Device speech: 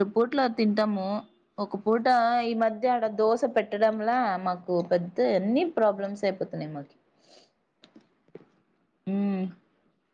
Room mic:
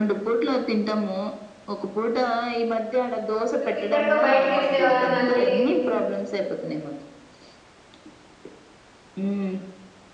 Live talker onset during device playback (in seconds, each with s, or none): 3.6 s